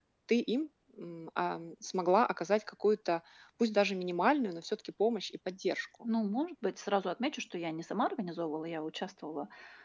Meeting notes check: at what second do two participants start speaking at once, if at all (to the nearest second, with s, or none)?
none